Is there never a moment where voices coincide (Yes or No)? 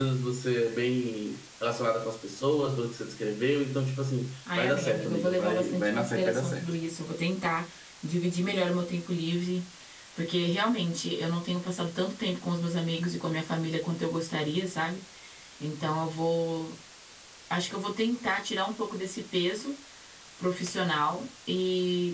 No